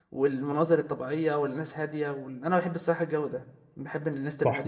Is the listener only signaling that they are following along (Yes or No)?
No